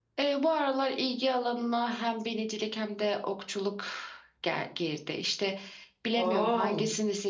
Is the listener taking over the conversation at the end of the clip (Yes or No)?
No